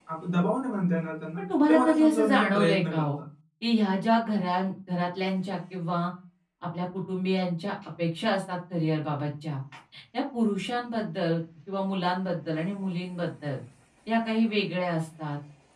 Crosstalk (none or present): present